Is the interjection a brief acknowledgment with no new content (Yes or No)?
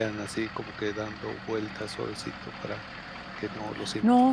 No